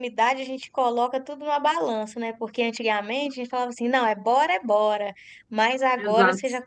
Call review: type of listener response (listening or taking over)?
listening